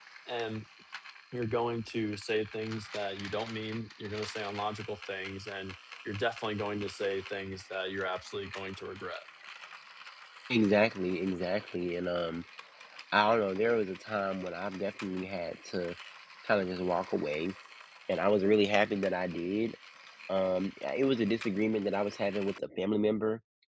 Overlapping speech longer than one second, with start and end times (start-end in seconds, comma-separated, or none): none